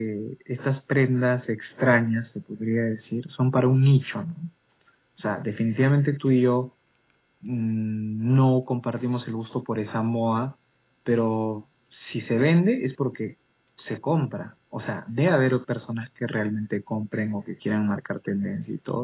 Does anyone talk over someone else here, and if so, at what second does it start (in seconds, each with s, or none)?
none